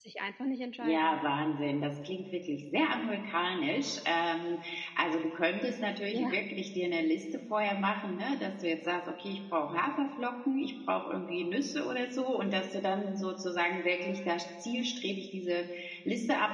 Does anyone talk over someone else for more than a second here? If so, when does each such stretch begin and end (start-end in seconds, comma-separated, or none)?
none